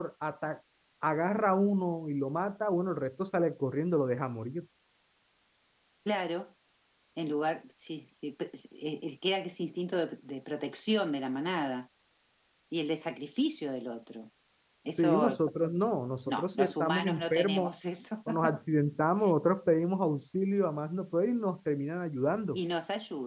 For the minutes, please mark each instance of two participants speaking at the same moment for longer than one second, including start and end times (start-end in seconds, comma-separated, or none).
16.3-17.7